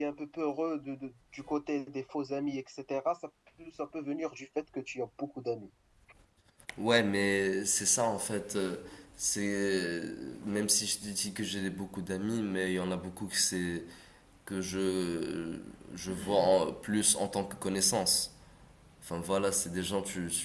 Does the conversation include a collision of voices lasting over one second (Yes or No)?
No